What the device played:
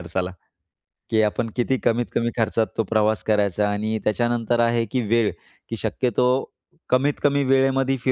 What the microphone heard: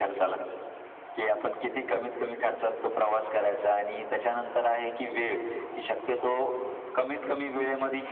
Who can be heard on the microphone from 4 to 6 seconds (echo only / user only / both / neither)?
echo only